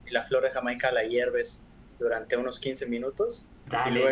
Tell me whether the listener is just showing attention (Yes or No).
No